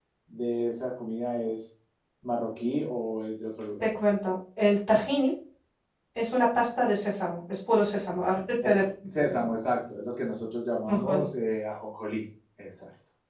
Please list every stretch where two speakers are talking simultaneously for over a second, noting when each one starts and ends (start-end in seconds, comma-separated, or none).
none